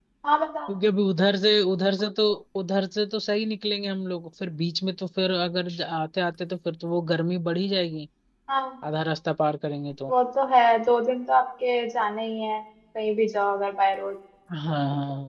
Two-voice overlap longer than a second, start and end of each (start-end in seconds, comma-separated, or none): none